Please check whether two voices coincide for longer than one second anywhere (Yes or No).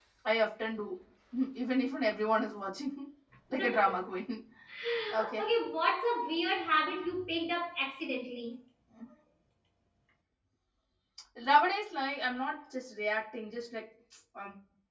No